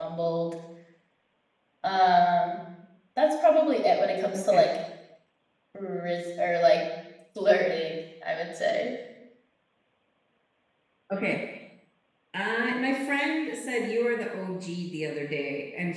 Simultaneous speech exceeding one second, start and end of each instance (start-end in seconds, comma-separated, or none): none